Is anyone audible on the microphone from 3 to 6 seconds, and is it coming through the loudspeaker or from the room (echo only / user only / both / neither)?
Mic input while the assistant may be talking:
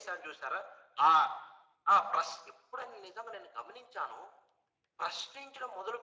echo only